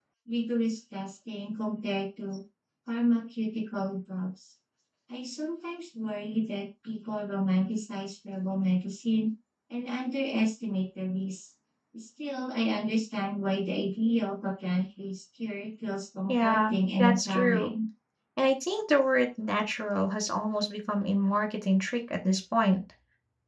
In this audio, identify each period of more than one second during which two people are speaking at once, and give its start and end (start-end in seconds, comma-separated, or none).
16.3-17.7